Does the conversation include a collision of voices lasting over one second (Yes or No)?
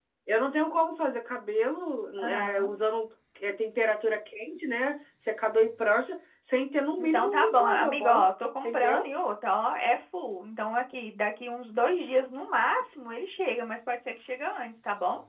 Yes